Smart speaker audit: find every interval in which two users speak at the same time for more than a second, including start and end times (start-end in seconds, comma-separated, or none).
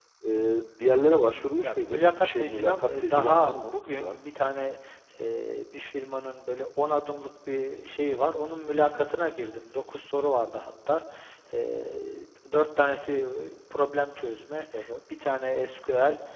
1.3-4.2